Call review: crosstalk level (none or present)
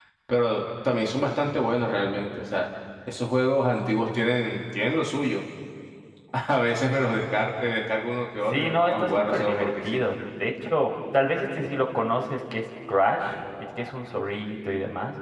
present